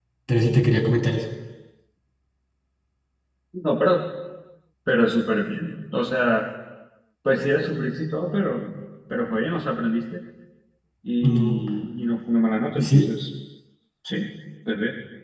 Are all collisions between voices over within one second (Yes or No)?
Yes